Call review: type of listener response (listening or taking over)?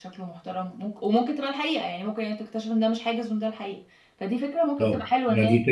taking over